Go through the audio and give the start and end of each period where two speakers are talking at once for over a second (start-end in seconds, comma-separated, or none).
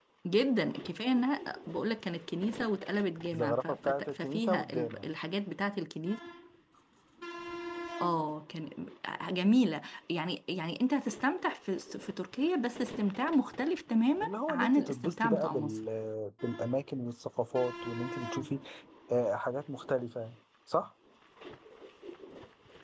3.3-5.1, 14.2-15.8